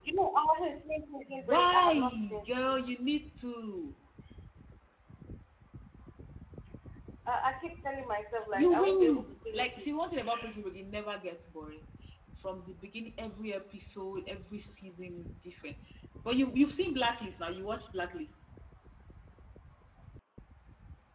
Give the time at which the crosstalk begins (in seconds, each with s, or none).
1.5 s